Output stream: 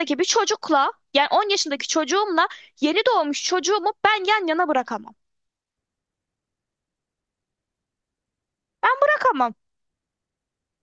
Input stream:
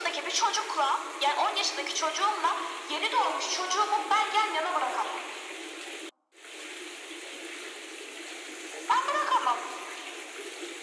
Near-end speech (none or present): none